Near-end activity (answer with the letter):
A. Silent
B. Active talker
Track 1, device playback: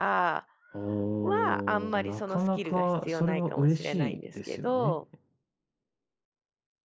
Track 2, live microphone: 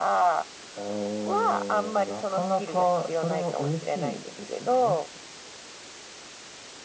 A